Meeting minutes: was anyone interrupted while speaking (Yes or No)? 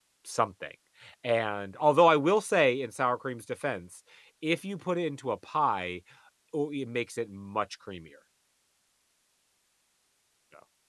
No